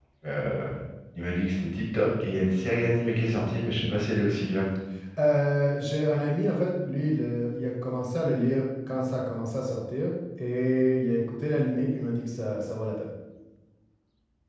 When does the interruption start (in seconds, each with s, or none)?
none